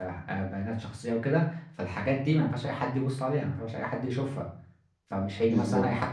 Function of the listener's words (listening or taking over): listening